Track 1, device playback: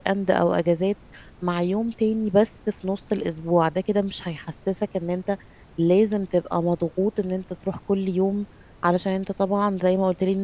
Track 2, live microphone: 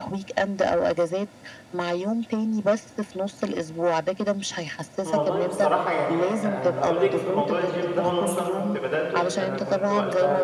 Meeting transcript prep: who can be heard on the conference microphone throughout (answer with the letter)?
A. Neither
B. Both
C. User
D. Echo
B